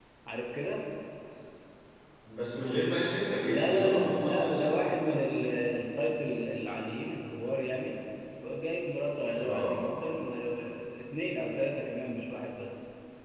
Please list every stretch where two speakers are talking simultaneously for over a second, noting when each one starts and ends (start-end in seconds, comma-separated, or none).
3.4-5.4